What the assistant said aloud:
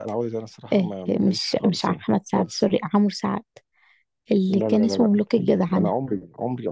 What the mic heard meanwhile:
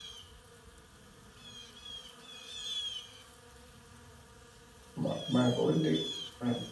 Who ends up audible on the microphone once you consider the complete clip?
user only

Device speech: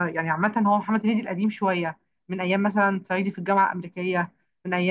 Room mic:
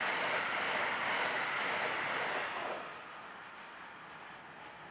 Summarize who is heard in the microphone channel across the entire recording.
neither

